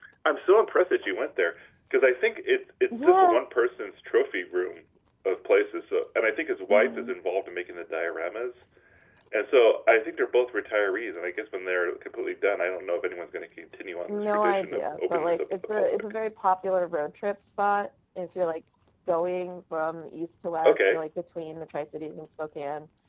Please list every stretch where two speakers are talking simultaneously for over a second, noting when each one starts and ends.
14.1-16.1

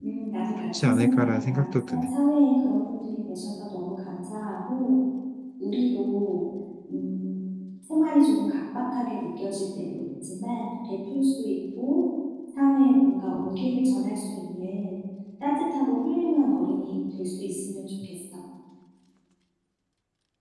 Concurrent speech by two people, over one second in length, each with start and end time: 0.8-2.1

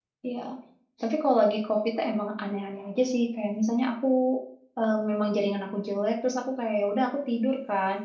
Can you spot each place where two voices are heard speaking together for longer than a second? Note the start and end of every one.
none

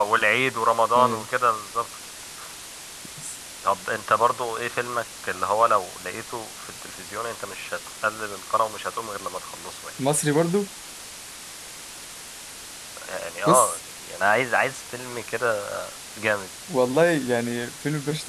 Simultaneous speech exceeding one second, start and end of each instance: none

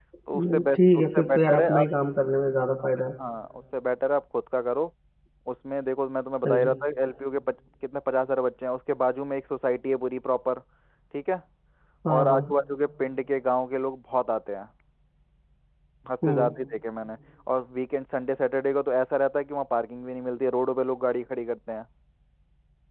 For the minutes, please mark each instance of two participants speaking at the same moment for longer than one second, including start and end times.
0.5-1.9

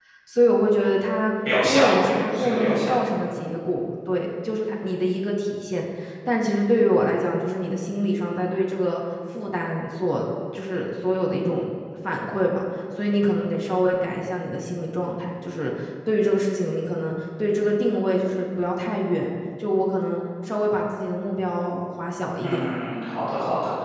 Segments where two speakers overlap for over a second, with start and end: 1.6-3.4

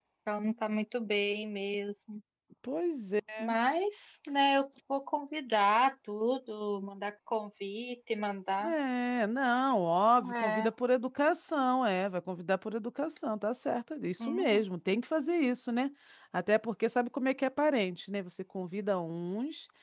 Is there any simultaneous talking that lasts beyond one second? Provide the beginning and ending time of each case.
none

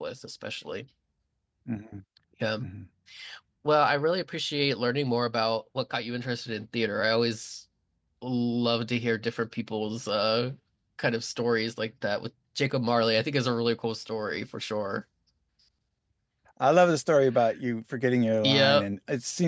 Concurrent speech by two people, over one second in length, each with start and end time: none

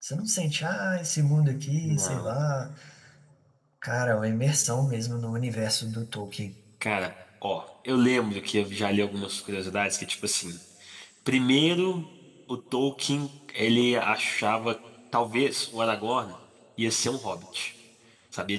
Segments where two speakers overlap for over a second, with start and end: none

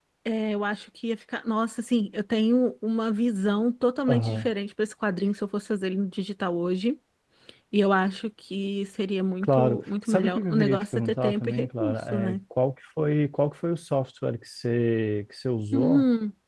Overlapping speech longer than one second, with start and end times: 9.4-12.4

